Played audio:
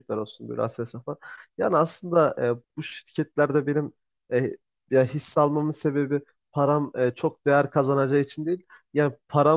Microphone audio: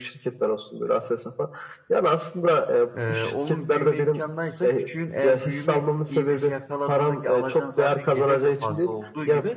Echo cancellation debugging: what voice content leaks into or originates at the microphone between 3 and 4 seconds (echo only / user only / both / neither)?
both